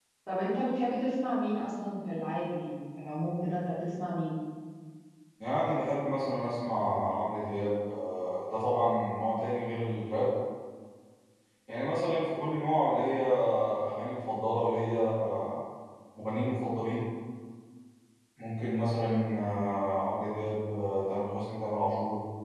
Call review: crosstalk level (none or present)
none